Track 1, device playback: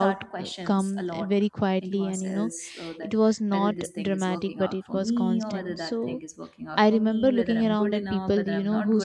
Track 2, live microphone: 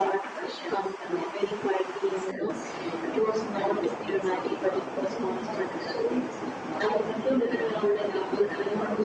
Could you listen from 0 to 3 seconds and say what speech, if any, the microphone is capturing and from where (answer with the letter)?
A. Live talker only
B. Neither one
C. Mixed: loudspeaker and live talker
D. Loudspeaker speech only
D